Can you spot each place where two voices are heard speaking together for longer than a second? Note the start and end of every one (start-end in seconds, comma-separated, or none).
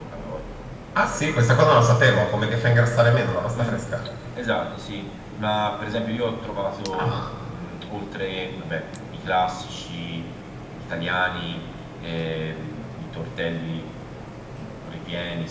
none